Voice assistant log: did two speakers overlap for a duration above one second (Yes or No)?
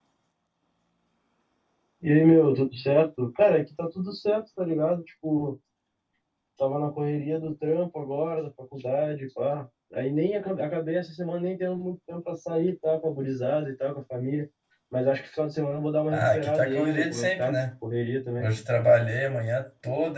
Yes